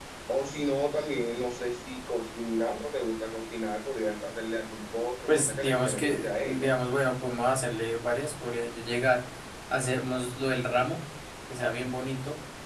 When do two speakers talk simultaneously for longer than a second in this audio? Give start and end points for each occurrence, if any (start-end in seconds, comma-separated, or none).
5.3-6.7